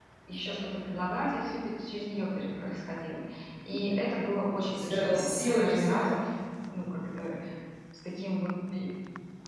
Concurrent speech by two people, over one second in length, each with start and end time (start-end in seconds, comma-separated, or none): 4.7-6.1